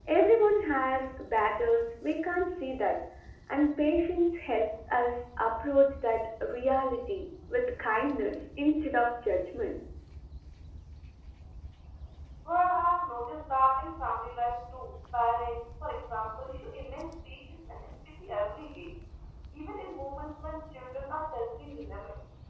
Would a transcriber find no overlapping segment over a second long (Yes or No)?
Yes